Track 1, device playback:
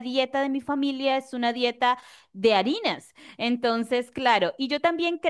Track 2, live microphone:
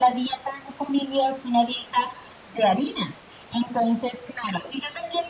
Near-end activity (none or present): none